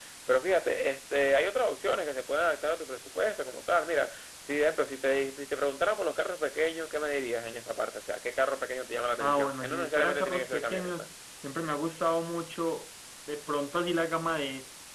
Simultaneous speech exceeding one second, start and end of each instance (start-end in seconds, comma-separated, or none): 9.2-10.9